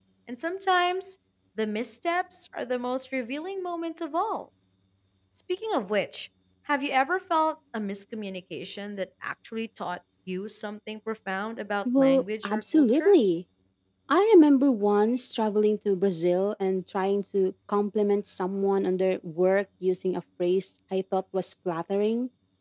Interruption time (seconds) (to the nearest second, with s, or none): 12 s